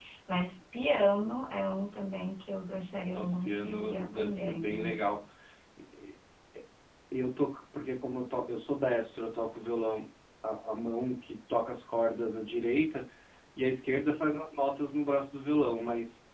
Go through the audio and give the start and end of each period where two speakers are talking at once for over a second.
3.1-5.2

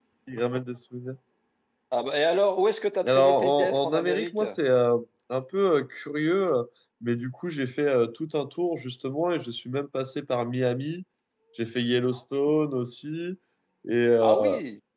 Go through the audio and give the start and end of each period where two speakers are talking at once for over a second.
3.0-4.4

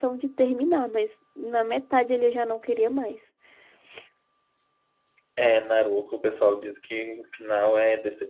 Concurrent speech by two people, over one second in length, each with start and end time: none

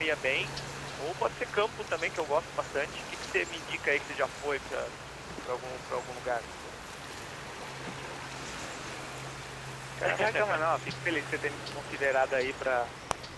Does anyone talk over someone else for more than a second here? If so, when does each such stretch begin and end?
none

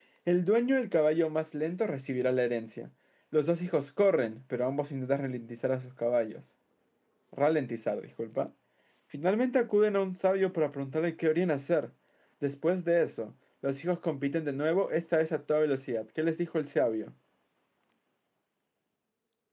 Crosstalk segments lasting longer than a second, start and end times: none

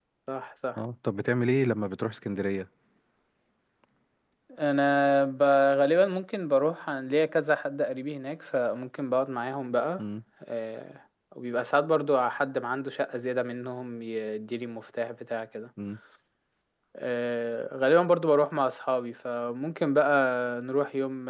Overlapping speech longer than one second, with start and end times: none

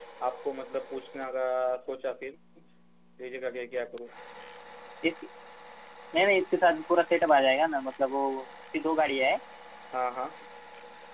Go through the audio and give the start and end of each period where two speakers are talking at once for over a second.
none

